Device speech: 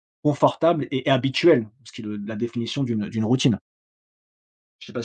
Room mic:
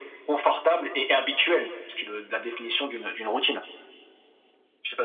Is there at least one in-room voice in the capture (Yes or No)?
No